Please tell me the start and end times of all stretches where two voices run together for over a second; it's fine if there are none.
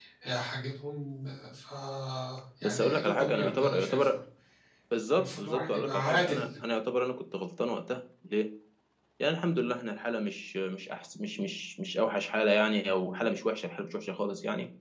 2.6-4.1, 5.2-6.5

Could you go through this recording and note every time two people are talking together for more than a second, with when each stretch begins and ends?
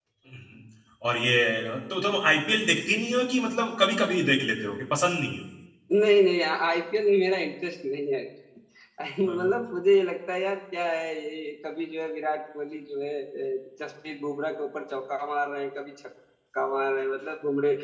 none

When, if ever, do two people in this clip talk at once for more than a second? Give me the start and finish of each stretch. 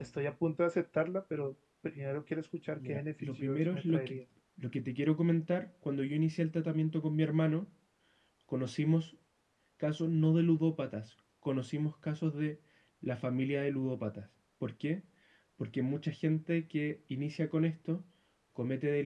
2.9-4.1

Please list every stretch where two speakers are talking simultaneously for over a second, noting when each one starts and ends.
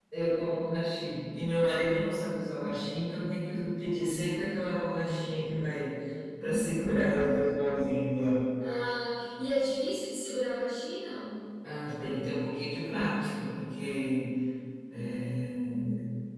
none

